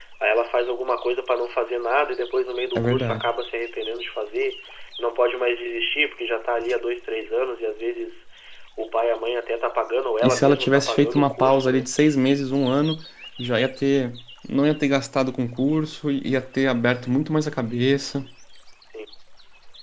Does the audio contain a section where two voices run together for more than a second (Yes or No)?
Yes